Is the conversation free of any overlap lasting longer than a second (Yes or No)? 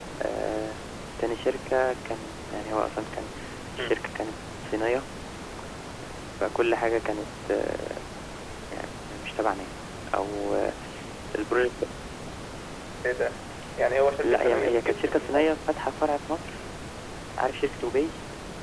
No